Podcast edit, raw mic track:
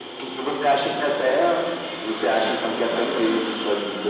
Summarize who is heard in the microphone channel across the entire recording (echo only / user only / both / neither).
both